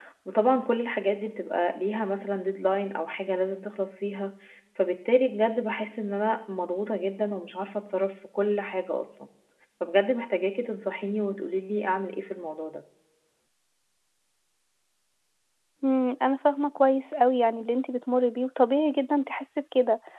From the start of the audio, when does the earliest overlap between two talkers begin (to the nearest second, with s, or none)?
none